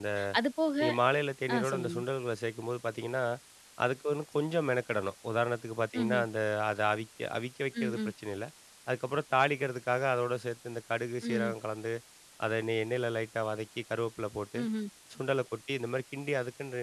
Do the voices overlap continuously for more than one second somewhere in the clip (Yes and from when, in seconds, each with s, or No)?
No